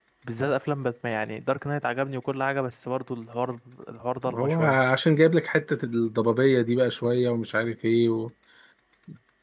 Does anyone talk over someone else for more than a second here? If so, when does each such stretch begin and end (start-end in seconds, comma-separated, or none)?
none